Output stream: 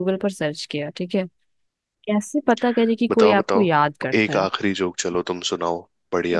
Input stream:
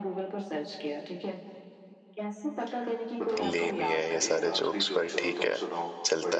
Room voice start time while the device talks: 3 s

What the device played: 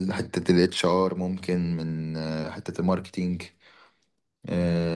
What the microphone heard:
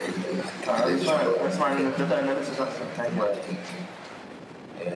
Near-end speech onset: 1 s

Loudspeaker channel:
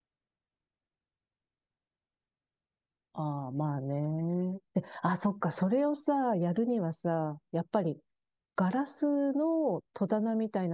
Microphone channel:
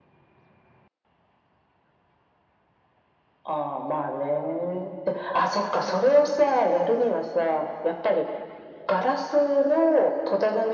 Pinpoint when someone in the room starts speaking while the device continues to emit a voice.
none

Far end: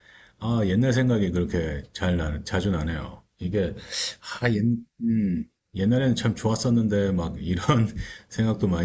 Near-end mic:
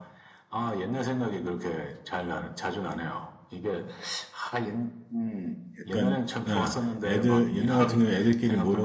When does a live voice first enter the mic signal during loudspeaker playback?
6 s

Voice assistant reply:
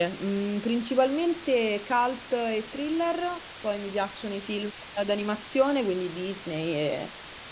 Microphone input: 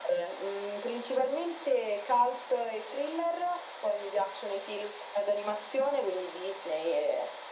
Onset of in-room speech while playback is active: none

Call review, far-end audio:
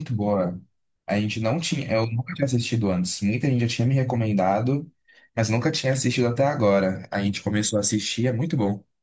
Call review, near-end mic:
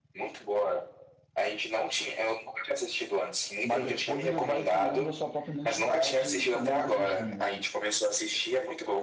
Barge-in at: 4 s

